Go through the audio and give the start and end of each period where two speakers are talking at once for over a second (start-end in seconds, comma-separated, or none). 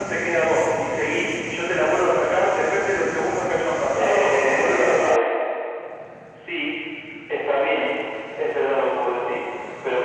3.9-5.3